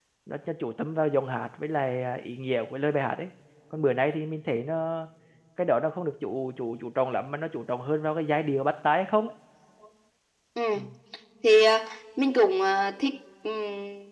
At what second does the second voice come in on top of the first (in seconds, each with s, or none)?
none